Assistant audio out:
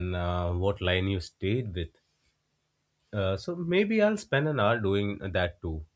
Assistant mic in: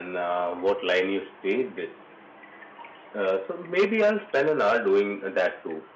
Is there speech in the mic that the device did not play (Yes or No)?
No